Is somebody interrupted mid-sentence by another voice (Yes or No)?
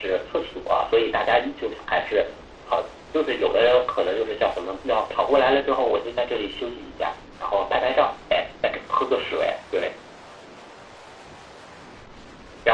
No